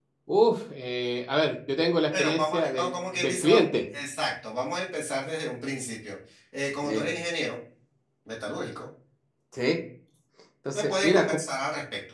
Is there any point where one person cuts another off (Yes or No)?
Yes